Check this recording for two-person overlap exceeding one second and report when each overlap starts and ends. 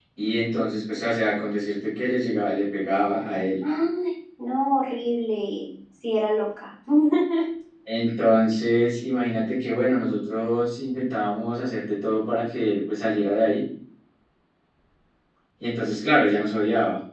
none

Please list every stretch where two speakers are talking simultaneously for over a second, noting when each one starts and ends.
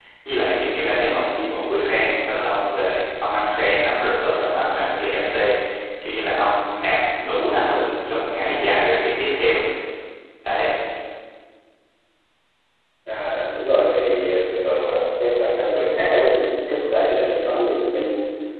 none

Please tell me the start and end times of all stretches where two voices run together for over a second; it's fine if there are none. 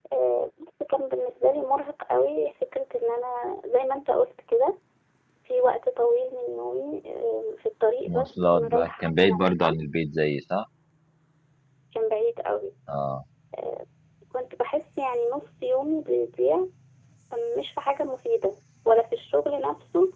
8.1-9.7

